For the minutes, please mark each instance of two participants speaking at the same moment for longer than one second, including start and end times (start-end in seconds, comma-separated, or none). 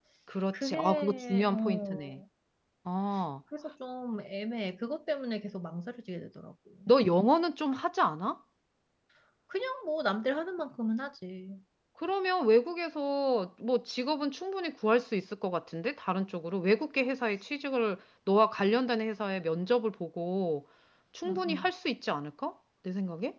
0.5-2.2